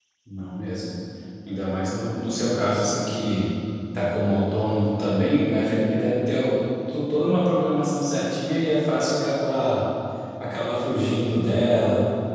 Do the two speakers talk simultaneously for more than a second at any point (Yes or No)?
No